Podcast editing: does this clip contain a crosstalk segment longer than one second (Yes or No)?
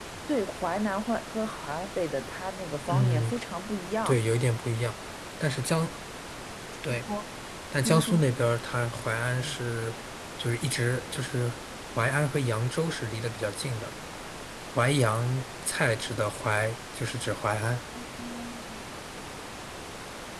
No